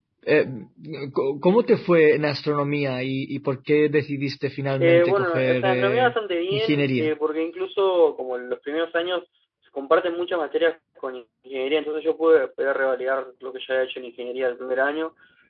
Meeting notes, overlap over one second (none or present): present